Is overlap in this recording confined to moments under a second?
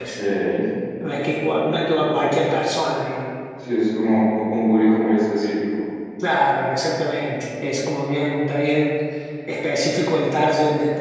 Yes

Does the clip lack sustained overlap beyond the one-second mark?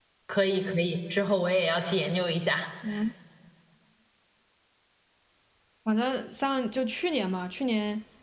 Yes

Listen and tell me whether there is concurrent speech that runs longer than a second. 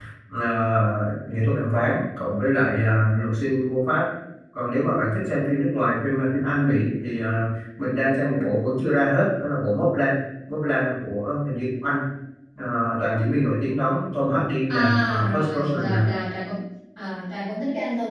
Yes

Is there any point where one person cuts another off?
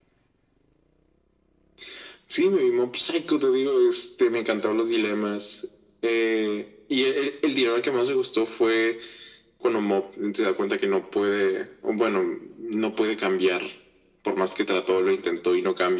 No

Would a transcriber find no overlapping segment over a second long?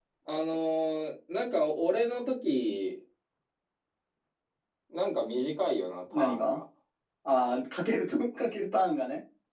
Yes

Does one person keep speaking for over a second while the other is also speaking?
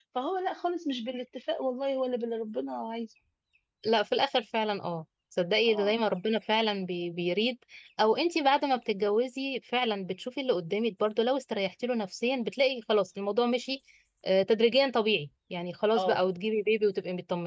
No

